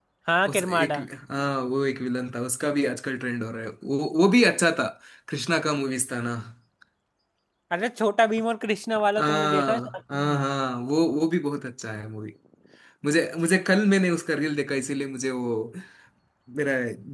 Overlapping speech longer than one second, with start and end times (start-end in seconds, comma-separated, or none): 9.2-10.4